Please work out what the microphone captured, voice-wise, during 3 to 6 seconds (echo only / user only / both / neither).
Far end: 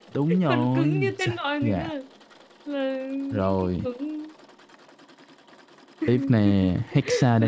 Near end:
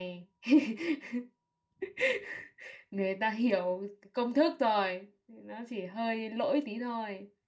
user only